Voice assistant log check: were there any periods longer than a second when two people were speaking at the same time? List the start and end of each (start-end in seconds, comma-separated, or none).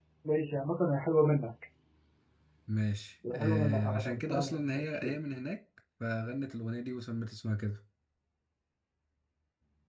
3.3-5.2